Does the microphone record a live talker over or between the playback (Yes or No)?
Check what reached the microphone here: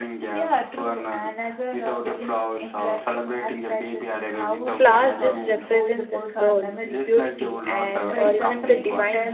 Yes